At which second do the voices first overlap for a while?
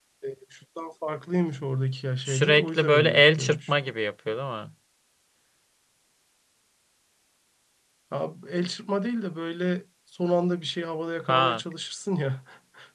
2.2 s

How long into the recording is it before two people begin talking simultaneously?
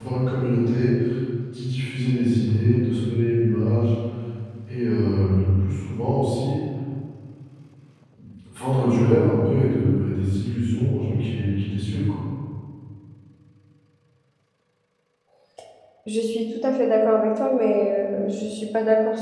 none

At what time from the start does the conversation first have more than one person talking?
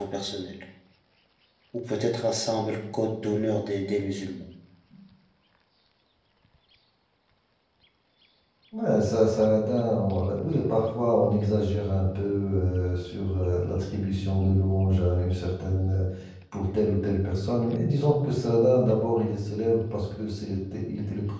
none

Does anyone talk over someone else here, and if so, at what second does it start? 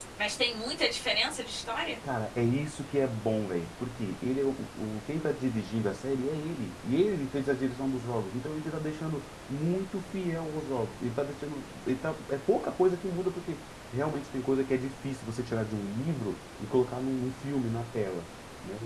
none

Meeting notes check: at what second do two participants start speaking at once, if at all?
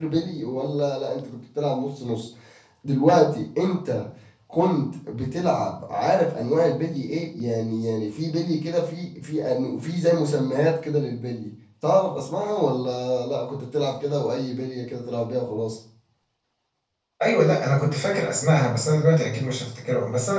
none

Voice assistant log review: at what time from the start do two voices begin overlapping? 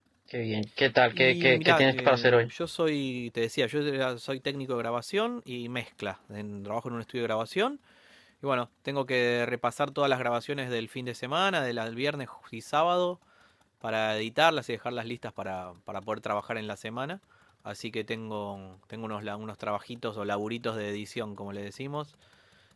1.1 s

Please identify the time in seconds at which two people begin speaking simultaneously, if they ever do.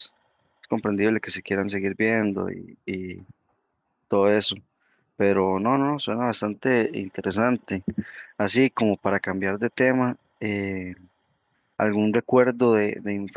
none

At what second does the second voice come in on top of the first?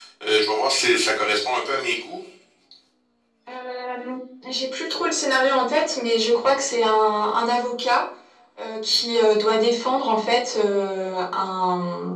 none

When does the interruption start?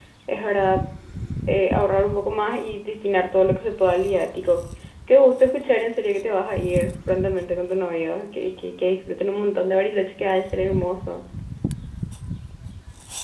none

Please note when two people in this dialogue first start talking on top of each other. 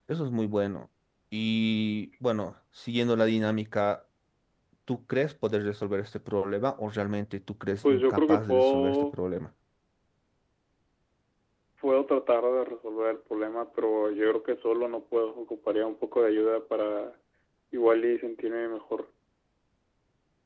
7.8 s

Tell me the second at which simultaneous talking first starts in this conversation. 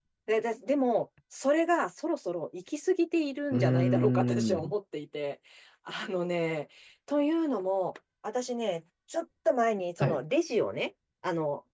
3.5 s

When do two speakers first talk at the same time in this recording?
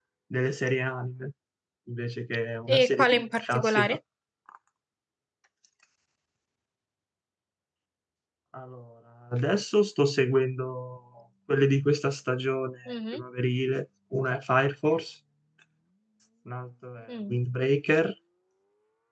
2.7 s

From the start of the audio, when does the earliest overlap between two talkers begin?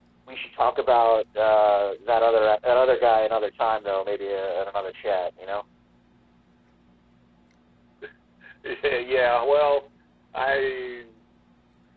none

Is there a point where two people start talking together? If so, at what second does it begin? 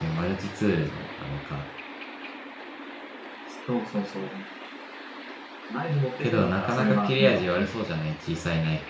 6.2 s

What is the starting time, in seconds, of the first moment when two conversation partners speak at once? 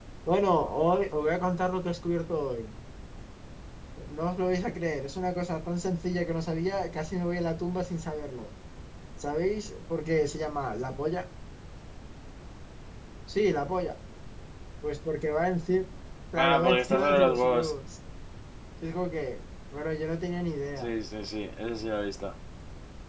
16.4 s

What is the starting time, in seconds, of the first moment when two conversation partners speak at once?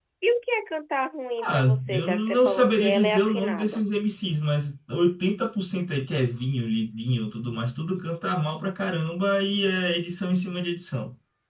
1.4 s

